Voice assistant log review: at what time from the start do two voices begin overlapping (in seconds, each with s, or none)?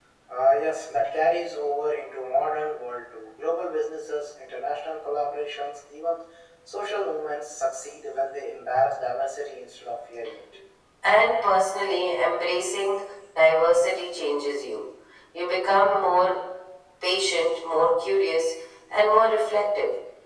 none